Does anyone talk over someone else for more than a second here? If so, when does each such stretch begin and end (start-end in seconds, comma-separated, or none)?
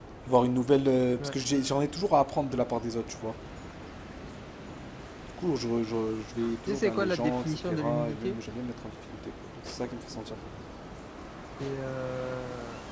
6.7-8.3